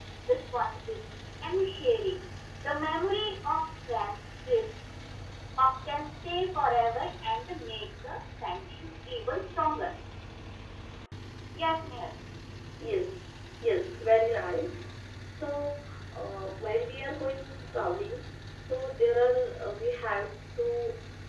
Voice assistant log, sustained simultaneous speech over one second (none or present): none